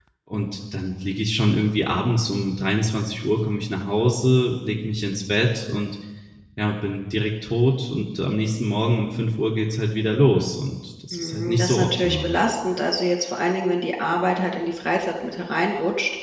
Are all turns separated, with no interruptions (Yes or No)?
No